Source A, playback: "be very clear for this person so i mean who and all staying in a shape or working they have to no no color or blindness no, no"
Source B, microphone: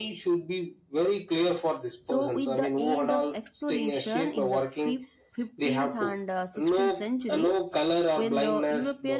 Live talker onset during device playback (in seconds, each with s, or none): 2.0 s